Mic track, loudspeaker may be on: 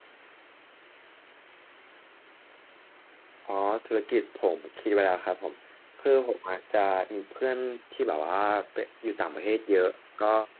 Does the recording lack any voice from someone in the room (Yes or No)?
No